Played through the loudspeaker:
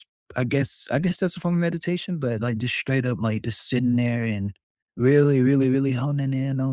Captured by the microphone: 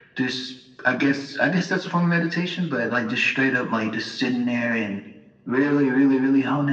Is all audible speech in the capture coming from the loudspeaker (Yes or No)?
Yes